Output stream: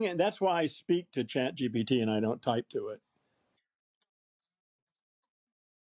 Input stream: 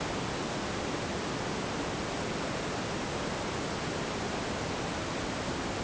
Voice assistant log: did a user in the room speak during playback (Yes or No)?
No